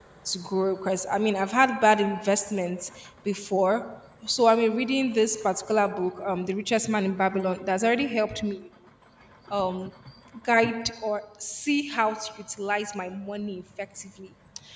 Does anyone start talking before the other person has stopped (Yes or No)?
No